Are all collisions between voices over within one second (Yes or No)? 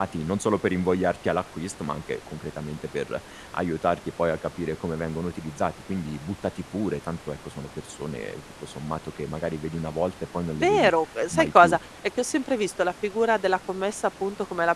Yes